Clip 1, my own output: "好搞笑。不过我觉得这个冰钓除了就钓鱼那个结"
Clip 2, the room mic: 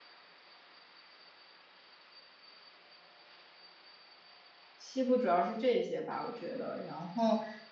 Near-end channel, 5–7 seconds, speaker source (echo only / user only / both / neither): user only